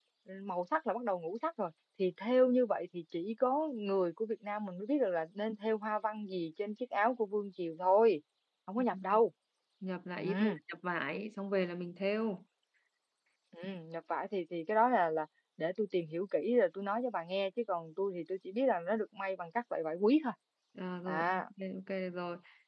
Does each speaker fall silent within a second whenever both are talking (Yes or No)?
Yes